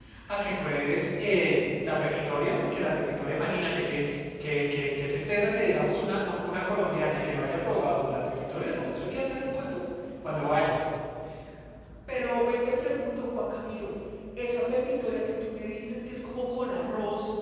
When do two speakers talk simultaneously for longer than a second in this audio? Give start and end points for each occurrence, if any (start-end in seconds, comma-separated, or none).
none